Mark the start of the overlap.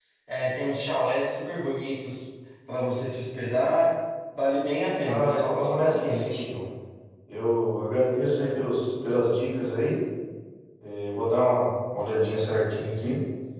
5 s

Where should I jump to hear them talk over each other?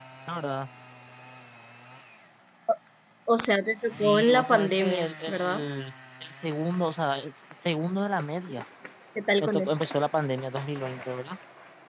4 s

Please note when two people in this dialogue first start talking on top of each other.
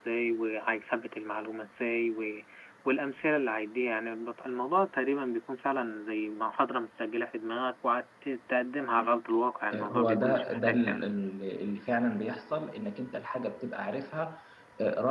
10 s

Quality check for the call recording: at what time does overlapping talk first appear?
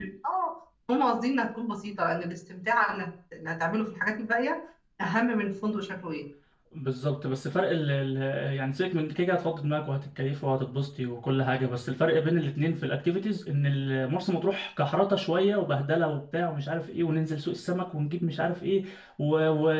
none

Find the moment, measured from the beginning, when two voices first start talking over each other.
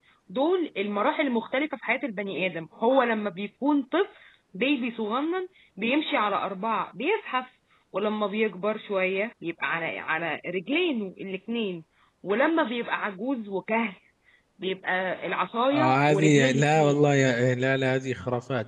16 s

